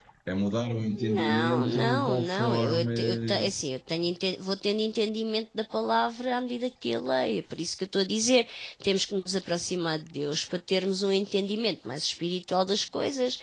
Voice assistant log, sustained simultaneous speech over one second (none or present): present